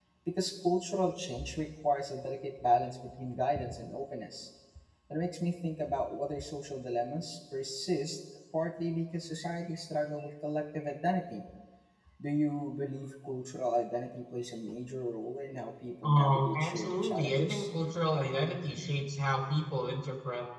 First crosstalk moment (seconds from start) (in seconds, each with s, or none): 16.0 s